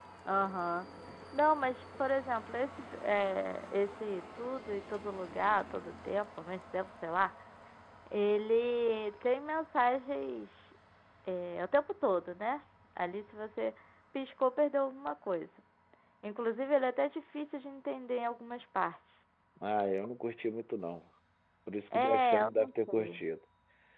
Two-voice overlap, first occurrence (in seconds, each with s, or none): 21.9 s